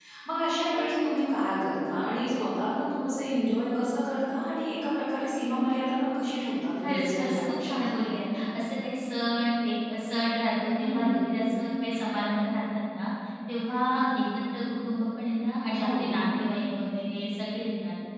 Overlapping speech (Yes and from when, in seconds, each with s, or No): Yes, from 6.8 s